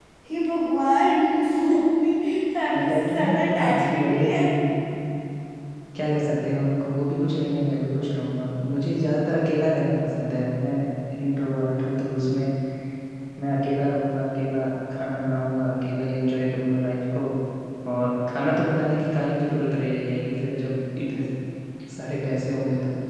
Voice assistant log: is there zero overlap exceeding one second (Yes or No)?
No